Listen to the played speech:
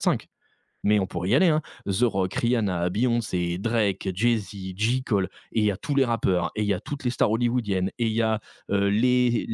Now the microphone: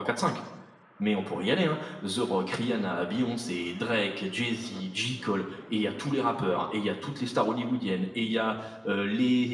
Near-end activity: none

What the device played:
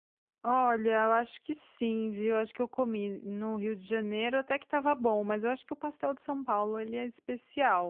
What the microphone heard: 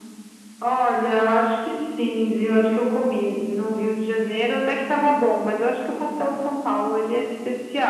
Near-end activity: none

